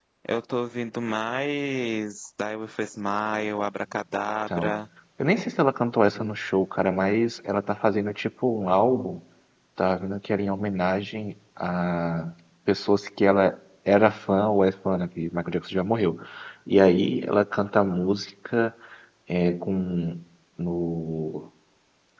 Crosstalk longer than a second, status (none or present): none